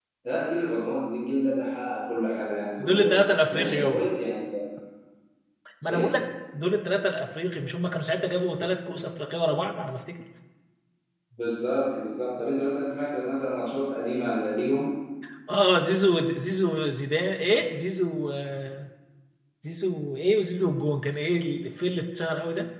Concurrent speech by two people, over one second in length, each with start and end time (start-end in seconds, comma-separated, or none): 2.8-4.1